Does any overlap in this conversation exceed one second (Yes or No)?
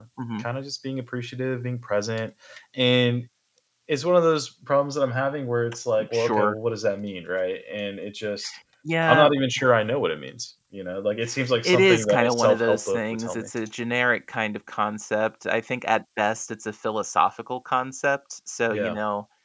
Yes